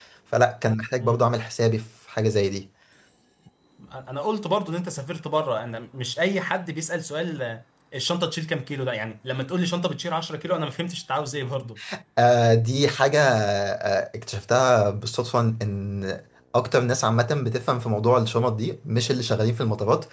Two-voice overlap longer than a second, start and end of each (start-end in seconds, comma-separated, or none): none